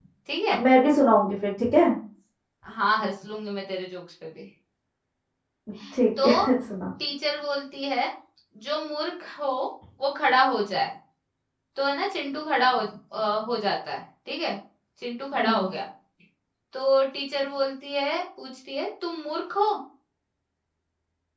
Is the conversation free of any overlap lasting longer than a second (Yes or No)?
Yes